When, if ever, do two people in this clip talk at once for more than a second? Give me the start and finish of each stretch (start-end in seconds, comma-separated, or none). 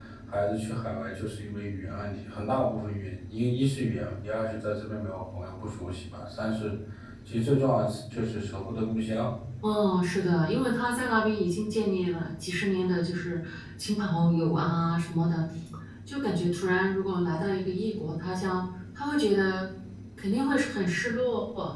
none